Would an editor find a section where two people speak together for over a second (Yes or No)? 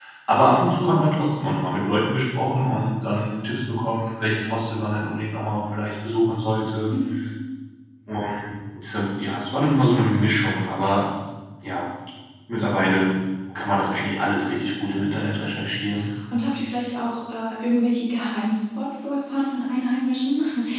No